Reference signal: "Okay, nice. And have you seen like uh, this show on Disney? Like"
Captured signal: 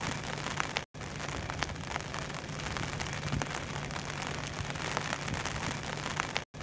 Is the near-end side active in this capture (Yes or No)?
No